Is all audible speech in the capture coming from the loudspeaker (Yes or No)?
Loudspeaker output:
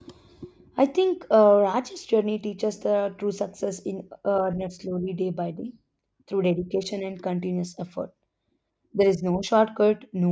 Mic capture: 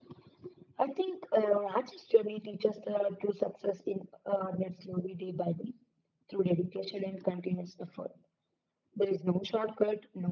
Yes